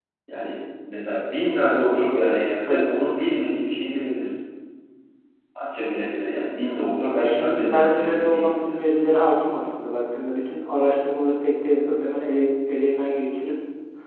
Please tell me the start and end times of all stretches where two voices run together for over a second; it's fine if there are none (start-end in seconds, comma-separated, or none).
7.2-8.6